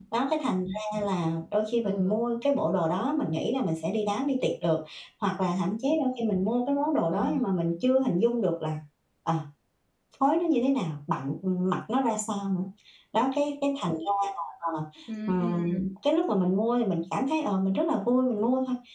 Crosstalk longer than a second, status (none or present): none